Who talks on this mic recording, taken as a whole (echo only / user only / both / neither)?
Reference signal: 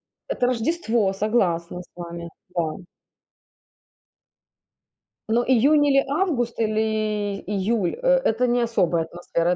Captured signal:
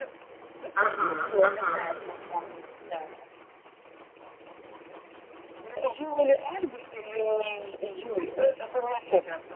both